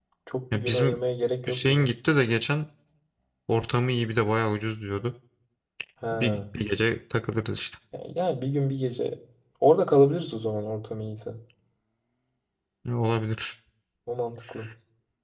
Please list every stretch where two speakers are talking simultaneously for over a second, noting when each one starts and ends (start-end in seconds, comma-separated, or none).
none